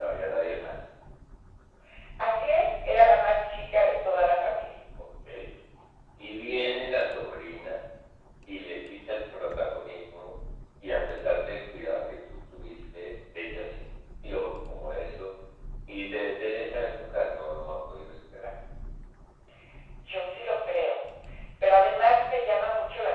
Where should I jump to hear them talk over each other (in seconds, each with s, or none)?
none